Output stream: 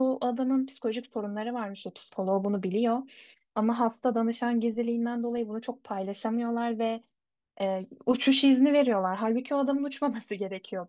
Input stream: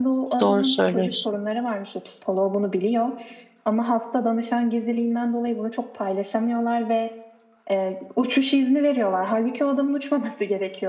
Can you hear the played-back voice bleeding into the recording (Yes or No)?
Yes